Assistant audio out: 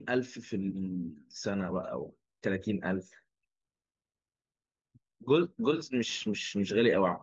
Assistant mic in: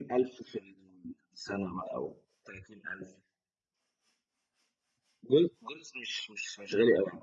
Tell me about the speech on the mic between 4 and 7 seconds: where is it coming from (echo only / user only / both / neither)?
echo only